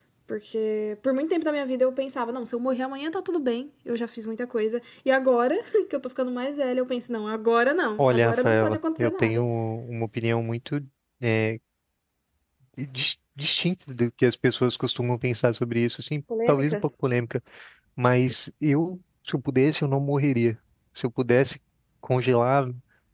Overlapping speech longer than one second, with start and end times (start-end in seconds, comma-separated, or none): 8.0-9.4